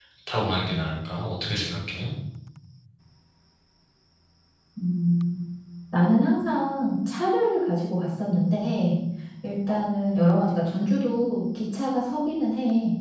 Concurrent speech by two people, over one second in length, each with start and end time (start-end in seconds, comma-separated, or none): none